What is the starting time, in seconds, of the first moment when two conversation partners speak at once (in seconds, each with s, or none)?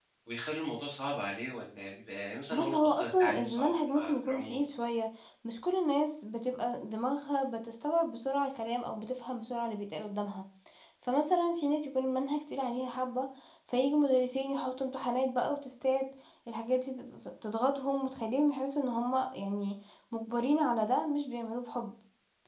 2.5 s